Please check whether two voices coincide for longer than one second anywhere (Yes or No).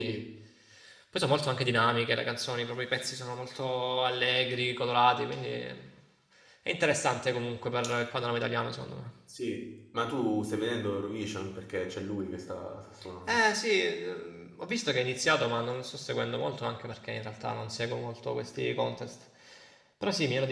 No